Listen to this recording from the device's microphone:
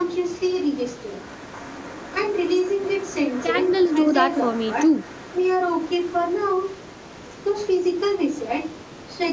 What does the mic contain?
both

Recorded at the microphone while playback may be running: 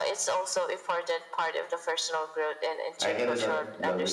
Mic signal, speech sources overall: both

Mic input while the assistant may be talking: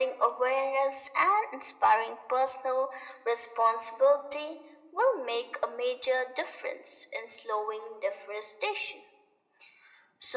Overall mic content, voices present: echo only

